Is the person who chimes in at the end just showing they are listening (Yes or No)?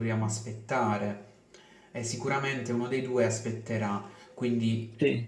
Yes